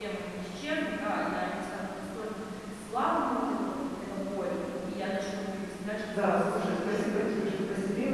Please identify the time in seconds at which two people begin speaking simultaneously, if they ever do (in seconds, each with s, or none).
6.1 s